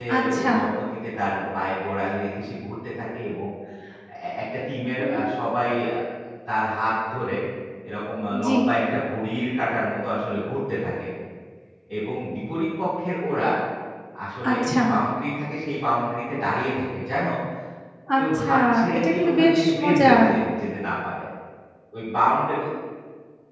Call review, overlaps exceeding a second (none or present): present